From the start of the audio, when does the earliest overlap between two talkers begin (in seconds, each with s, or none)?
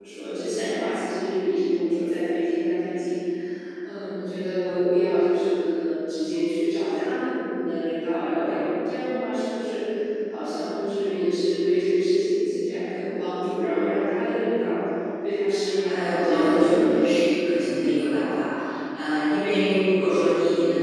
15.8 s